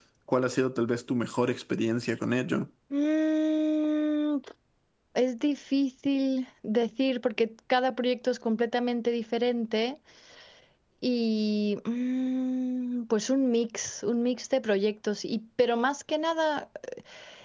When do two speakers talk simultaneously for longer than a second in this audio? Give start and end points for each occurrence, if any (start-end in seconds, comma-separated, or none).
none